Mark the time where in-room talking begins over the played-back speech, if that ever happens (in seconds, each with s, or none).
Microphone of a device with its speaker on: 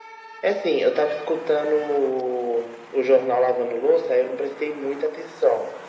none